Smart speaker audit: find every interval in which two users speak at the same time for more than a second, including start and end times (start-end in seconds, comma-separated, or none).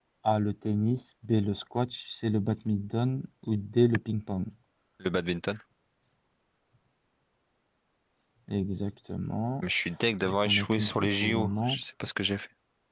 10.2-11.8